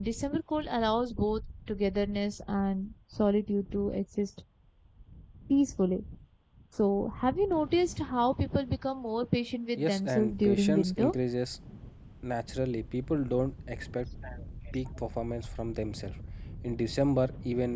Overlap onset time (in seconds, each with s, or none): 9.8 s